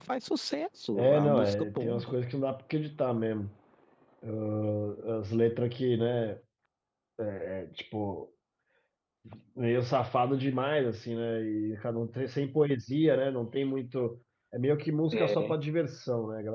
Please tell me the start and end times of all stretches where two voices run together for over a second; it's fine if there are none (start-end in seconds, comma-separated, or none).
0.9-2.2